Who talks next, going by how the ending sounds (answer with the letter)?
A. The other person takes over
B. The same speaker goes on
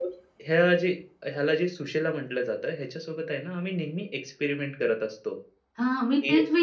A